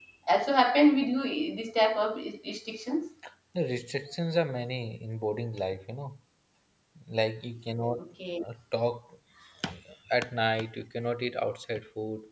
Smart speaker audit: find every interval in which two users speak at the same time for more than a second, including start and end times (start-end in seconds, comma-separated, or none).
none